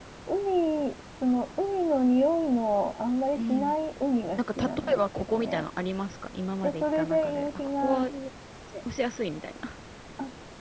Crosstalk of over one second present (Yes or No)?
Yes